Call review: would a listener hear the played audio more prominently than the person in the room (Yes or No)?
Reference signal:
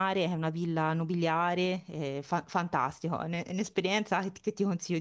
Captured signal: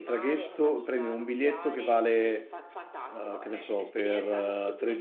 No